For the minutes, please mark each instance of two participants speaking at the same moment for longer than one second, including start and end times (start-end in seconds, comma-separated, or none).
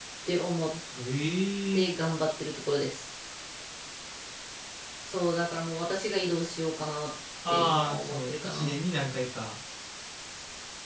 7.5-8.8